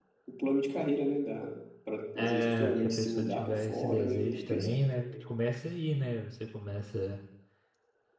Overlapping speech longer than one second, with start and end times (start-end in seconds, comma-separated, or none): 2.1-4.7